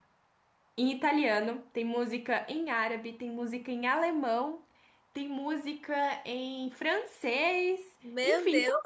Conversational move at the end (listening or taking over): listening